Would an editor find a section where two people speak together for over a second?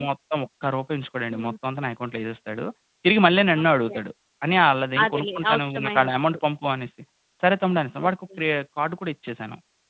Yes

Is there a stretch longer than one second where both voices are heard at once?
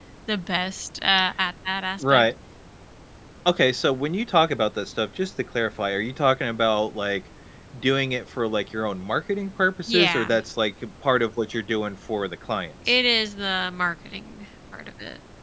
No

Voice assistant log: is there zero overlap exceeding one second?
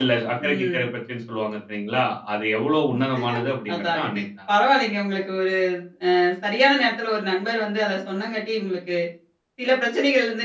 Yes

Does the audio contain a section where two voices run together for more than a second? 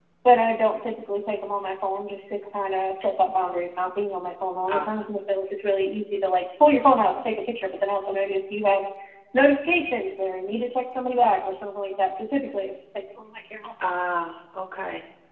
No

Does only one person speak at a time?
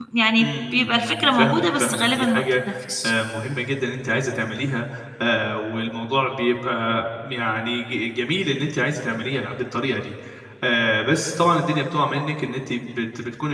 No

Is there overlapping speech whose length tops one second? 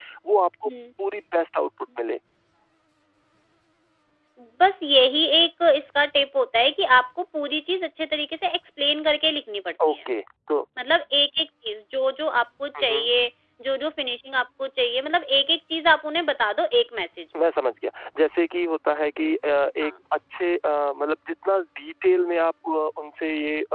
No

